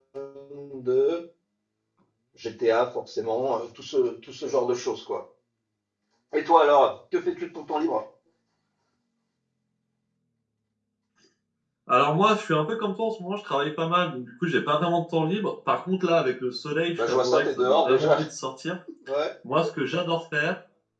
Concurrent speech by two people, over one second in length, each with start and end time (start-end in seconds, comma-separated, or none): 17.0-18.2